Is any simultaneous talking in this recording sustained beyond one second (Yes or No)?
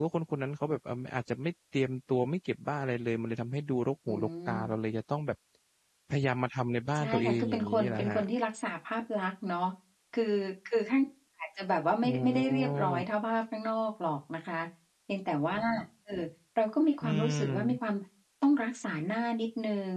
Yes